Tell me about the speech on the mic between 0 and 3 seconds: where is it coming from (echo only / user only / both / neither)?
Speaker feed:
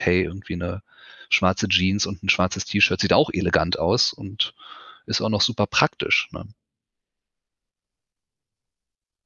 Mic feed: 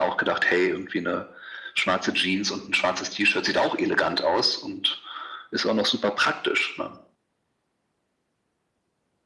echo only